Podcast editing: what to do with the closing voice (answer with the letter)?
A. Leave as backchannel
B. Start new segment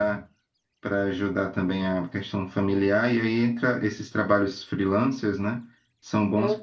A